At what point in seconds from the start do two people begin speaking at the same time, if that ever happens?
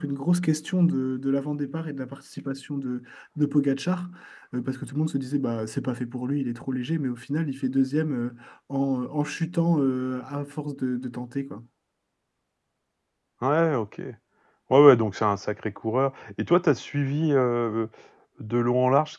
none

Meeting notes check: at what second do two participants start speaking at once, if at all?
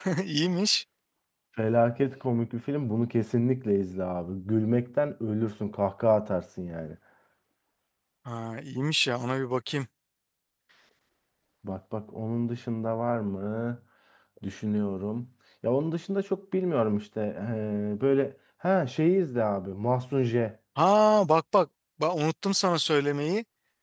none

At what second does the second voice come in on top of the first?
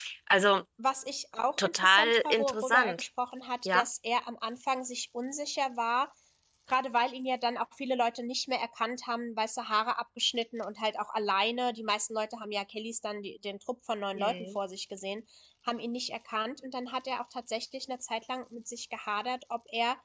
1.6 s

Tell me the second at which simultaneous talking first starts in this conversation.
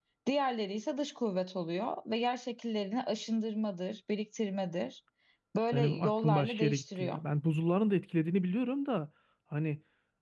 5.7 s

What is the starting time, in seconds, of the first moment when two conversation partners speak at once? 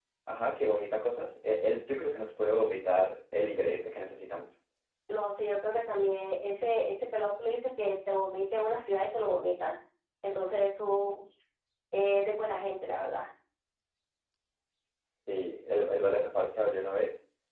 none

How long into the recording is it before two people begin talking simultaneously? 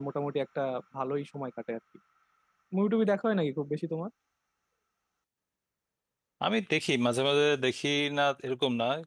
none

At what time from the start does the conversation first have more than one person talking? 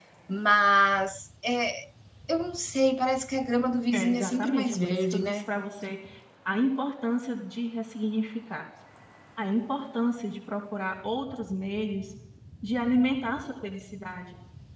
3.9 s

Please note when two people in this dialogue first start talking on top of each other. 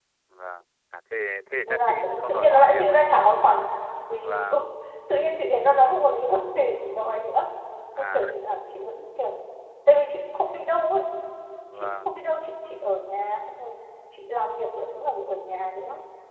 1.6 s

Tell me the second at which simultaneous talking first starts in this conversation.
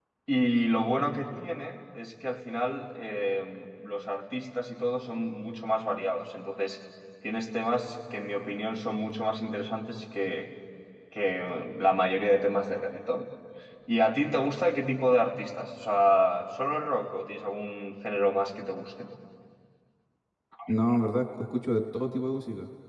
none

